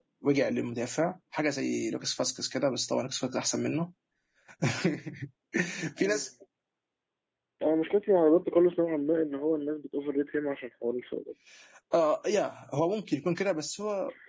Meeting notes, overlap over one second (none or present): none